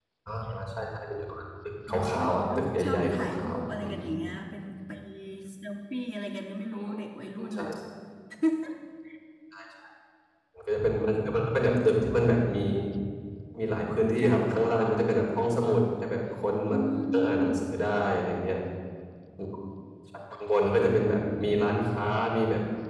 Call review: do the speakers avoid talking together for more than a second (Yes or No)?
No